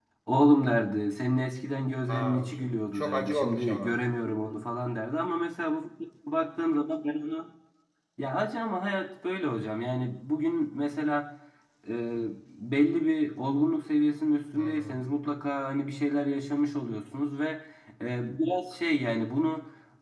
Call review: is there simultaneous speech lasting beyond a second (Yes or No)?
Yes